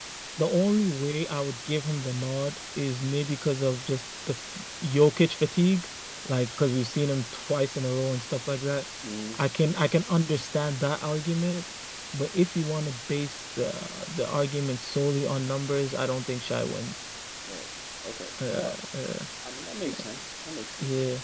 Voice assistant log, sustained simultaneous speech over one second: none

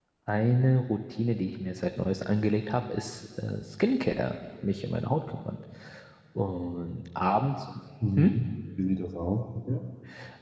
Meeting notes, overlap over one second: none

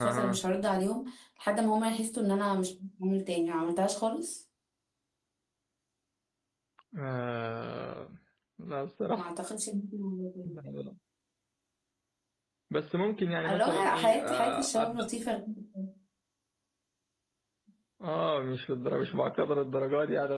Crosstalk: present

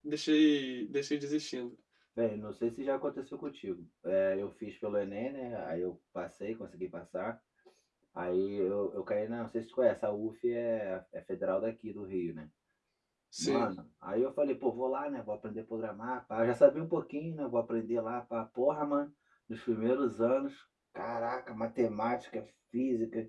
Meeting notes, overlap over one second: none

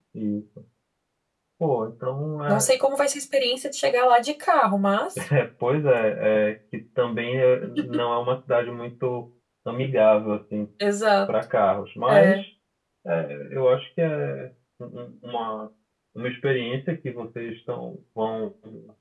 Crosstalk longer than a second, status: none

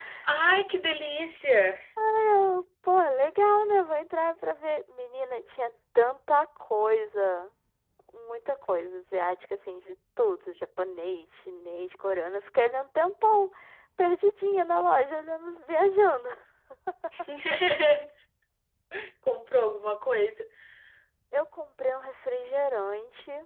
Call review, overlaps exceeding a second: none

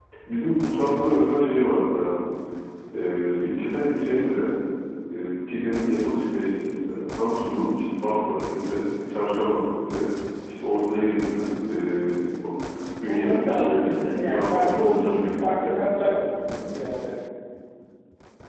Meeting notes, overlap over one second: present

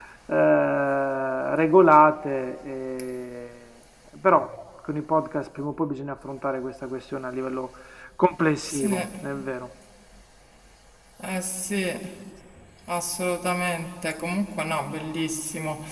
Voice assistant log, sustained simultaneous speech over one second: none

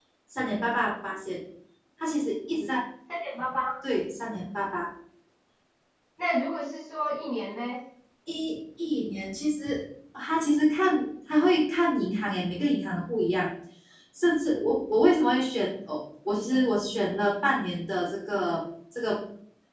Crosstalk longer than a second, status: none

